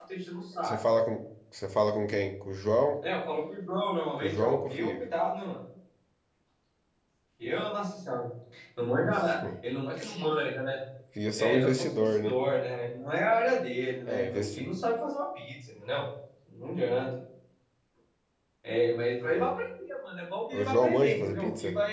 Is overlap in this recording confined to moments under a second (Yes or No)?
No